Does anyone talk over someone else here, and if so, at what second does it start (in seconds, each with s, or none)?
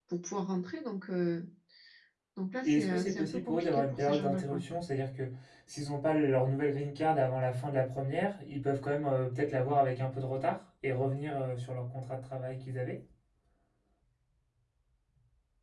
2.6 s